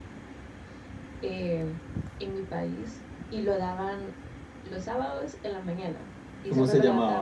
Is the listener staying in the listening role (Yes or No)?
No